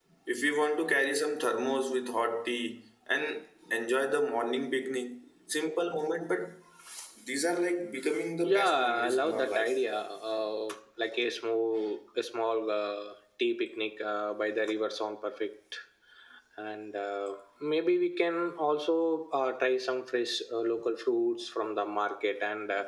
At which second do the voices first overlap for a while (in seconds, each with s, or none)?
8.4 s